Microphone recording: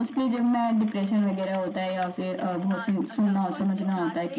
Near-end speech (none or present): present